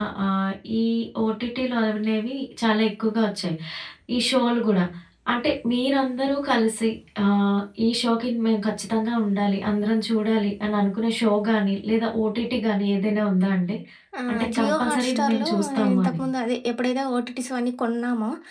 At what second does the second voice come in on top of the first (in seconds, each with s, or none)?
14.5 s